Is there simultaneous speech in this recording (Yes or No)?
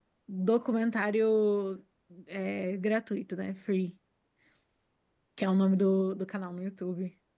No